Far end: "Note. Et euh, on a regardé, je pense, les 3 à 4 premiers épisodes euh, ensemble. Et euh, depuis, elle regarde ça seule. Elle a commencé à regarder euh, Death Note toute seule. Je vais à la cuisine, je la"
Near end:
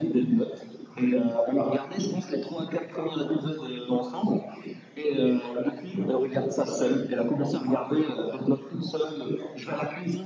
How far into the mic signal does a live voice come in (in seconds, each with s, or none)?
none